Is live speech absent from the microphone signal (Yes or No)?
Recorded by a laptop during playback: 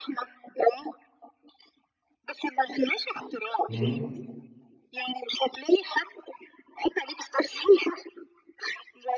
No